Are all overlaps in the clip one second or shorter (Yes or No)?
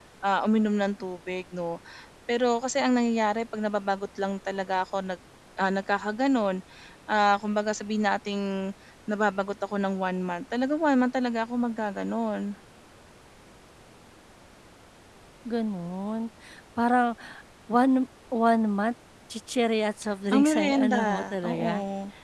No